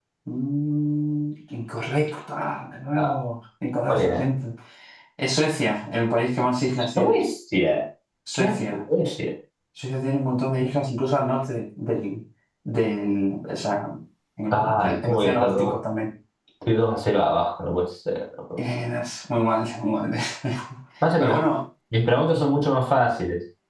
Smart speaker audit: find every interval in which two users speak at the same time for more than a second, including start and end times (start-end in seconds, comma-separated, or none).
14.5-15.7